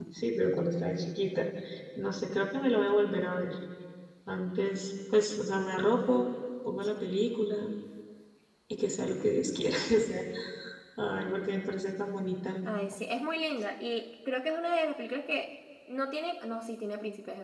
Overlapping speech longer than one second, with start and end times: none

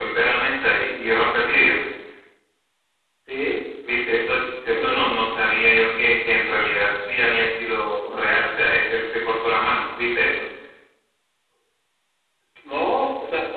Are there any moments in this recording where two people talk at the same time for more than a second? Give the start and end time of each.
none

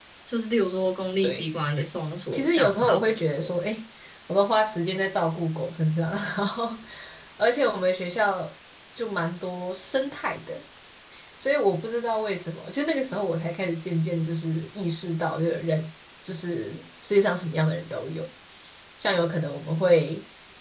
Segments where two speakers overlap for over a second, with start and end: 2.3-3.6

